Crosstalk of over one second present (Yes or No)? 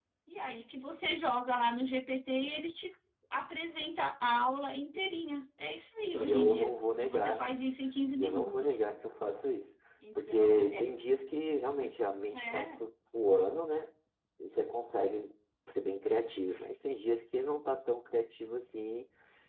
Yes